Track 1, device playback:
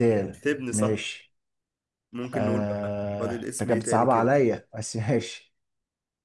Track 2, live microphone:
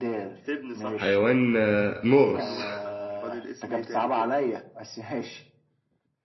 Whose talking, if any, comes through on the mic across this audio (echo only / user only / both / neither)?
both